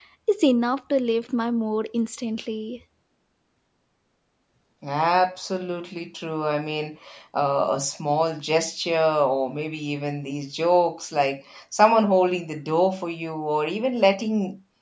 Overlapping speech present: No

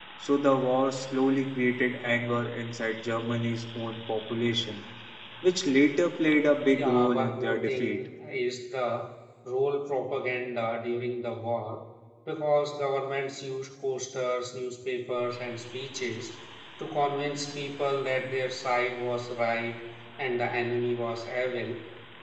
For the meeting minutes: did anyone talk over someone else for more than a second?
Yes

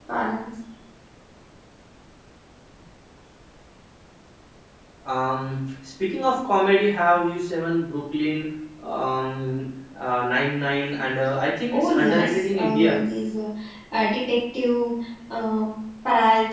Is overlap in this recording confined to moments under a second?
No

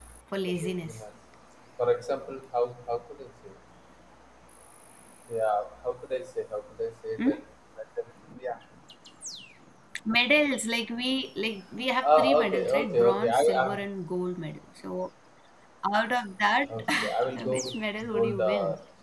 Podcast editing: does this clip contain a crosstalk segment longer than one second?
Yes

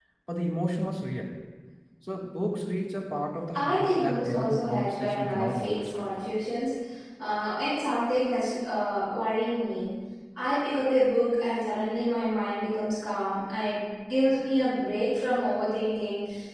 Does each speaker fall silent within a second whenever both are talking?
No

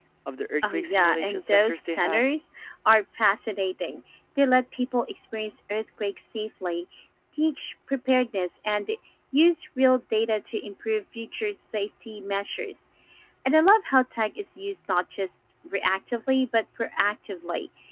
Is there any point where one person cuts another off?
Yes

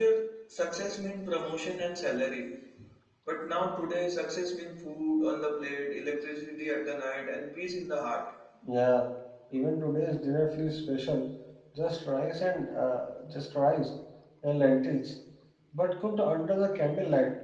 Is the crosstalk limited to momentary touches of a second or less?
Yes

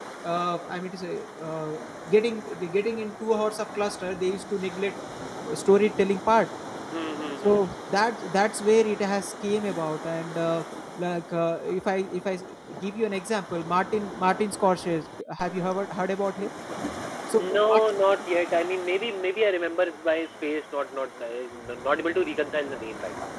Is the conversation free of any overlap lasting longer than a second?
Yes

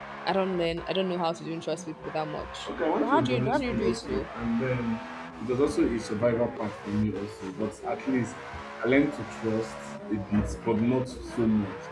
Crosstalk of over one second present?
Yes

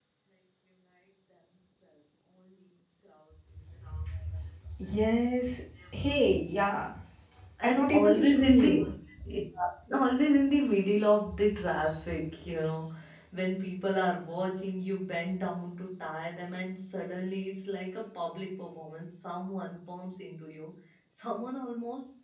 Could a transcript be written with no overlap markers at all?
No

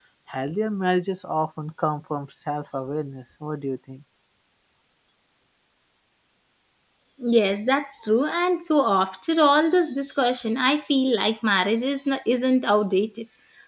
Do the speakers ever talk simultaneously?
No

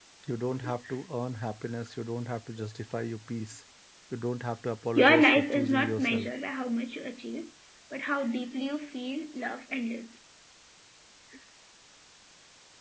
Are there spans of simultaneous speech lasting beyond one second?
Yes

